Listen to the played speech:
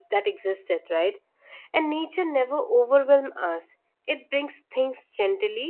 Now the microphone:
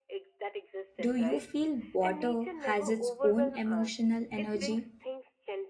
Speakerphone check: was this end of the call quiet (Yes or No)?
No